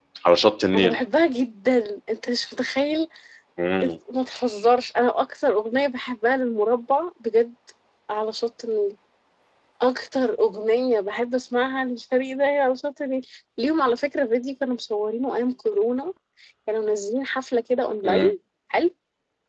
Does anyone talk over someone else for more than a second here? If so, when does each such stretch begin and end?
none

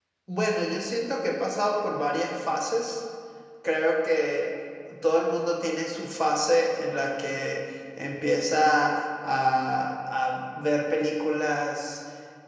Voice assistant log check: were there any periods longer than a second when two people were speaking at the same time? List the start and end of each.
none

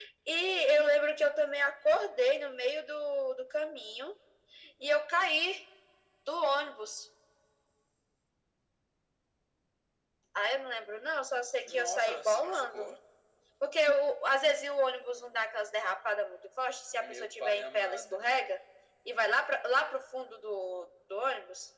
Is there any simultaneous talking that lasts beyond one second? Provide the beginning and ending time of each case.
11.6-12.9, 17.0-18.2

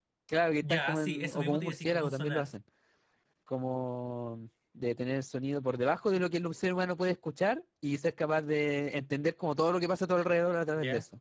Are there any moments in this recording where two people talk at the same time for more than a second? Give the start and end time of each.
0.6-2.5

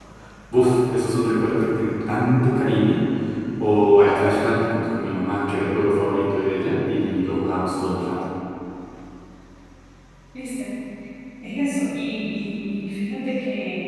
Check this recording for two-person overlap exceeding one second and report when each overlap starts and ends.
none

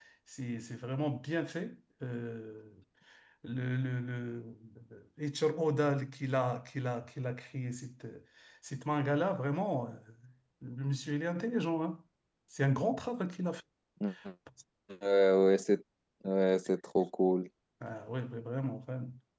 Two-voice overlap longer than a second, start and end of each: none

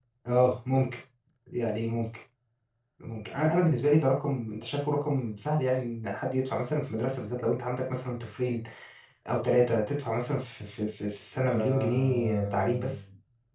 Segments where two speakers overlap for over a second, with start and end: 11.5-13.0

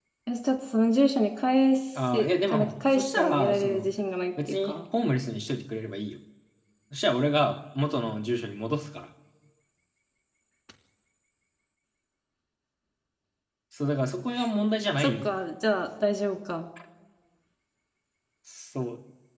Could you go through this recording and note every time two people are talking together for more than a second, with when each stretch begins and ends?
2.1-3.9

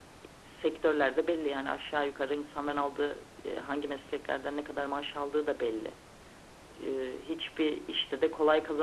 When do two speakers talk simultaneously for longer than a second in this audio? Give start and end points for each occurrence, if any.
none

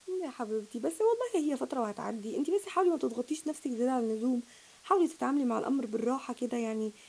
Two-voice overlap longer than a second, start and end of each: none

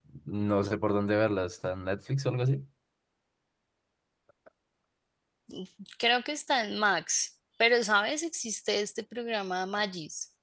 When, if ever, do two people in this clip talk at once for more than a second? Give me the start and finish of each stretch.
none

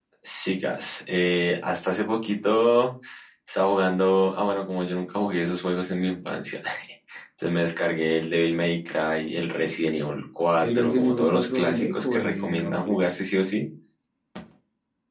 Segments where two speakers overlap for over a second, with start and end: 10.6-13.0

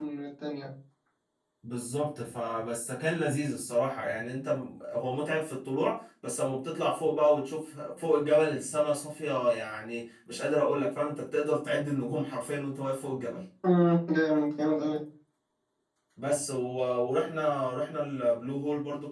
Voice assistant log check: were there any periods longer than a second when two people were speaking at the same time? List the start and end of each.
none

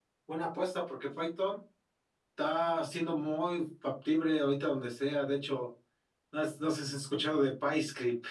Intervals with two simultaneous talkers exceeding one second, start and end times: none

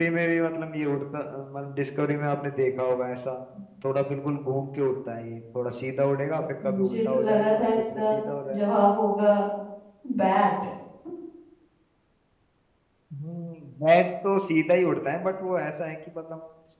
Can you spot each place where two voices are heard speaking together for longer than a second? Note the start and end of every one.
6.6-8.2

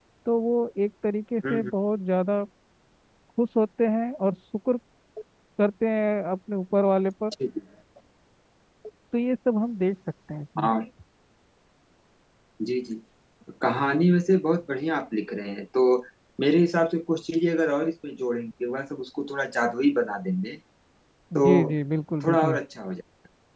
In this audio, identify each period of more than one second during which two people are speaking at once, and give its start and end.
none

